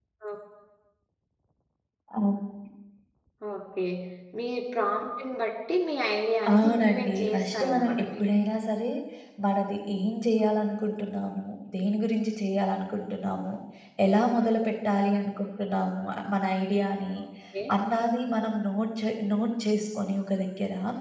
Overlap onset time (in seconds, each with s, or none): 6.5 s